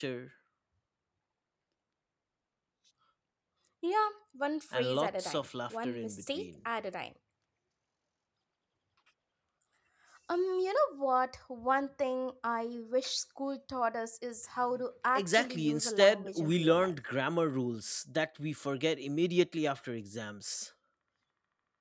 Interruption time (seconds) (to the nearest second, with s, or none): 5 s